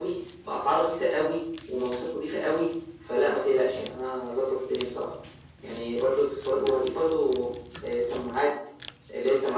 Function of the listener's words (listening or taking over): listening